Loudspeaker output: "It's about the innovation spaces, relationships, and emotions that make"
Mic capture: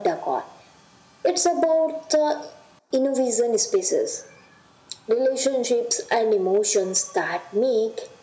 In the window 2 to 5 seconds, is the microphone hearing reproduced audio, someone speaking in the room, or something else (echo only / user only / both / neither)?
echo only